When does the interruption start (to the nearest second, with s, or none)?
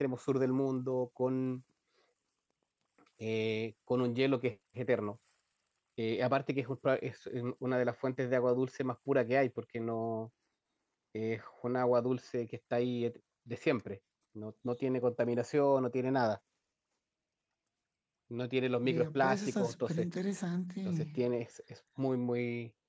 19 s